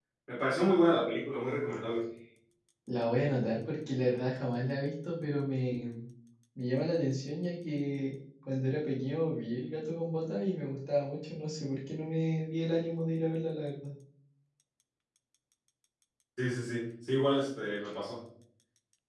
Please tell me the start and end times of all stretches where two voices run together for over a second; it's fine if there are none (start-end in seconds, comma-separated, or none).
none